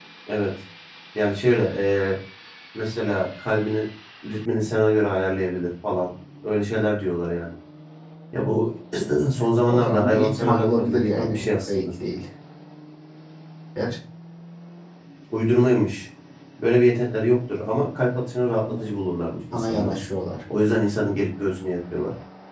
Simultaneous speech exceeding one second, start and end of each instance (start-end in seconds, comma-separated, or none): 9.7-11.8